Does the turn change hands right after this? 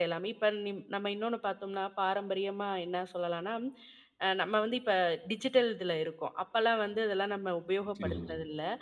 No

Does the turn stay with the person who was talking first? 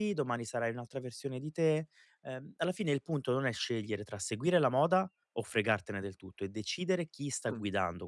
Yes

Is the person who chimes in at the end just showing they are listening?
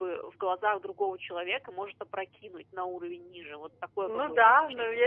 No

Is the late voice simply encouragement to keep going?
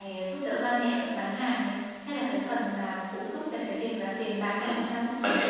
No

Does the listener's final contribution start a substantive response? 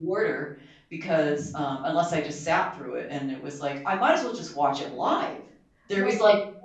No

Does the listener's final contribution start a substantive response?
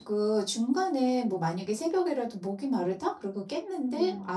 No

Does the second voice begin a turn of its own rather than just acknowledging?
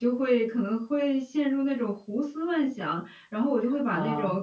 No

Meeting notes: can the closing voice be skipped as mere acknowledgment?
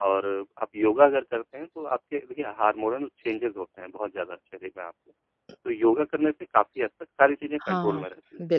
No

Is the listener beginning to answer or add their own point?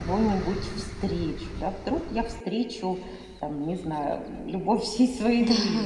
Yes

